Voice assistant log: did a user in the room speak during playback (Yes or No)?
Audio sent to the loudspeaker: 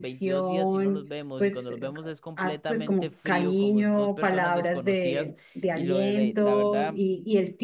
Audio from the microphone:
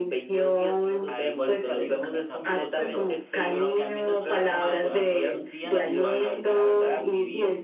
Yes